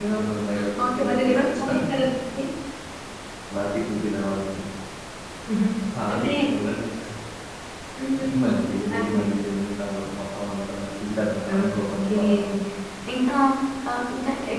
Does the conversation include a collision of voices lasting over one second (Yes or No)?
Yes